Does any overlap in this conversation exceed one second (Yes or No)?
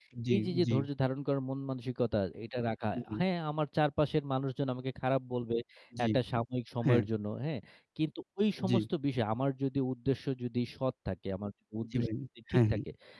No